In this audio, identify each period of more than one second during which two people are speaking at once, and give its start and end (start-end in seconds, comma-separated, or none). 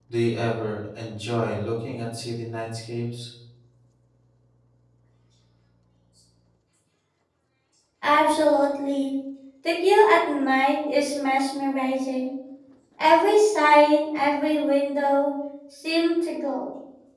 none